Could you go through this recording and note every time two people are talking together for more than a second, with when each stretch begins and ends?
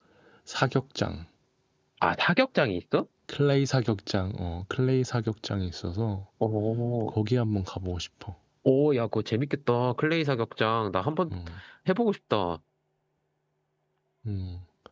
none

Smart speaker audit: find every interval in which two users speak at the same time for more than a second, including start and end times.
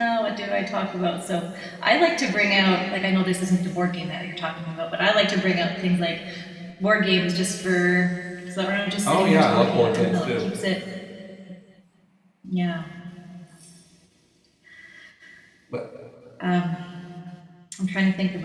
9.1-10.4

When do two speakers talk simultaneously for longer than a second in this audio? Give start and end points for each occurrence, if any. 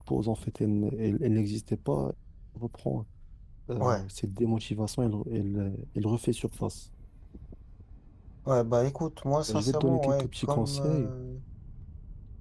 9.5-11.1

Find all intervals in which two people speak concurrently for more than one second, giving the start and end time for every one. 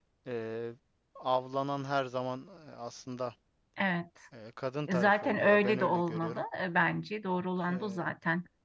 4.9-6.4

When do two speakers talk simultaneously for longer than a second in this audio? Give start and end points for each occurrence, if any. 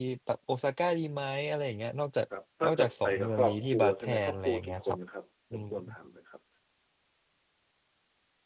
2.6-5.0

